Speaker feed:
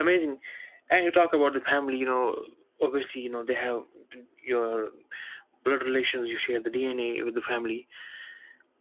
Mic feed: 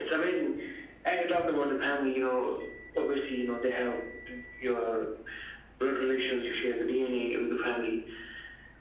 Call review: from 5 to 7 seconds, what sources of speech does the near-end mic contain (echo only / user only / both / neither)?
echo only